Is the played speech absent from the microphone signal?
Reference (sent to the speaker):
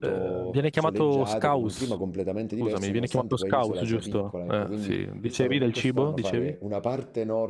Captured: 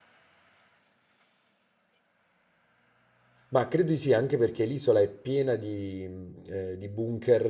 Yes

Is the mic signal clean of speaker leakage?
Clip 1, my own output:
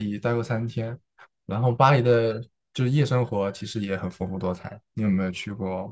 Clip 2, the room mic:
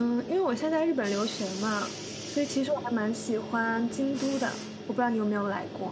Yes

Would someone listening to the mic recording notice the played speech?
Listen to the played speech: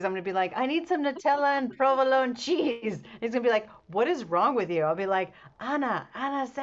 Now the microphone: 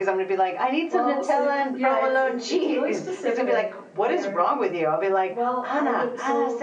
Yes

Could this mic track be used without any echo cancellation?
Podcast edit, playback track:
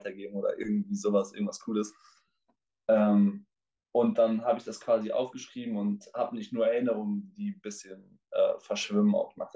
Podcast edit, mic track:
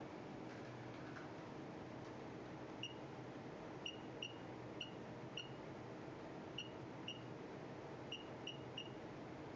Yes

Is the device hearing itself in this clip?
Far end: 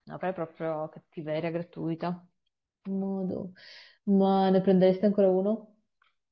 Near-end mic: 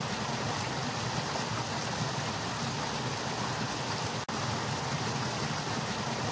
No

